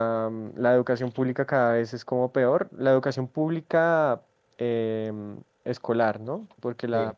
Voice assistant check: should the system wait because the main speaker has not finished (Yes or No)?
Yes